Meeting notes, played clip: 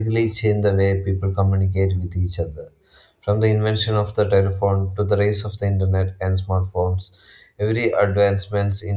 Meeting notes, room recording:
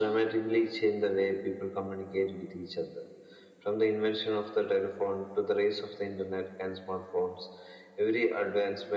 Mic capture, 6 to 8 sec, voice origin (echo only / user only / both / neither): echo only